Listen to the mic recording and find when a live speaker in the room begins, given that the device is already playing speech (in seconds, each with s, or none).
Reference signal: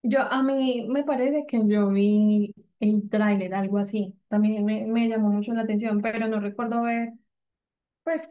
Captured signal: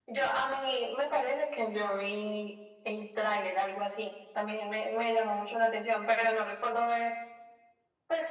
none